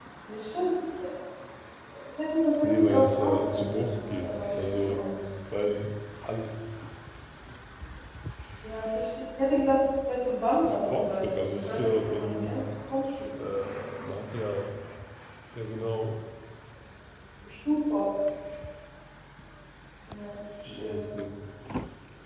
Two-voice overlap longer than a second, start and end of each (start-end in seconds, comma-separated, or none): 2.6-5.0, 10.6-12.6